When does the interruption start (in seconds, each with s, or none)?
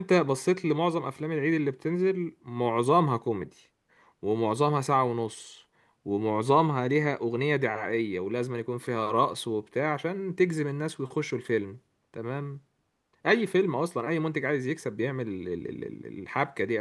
none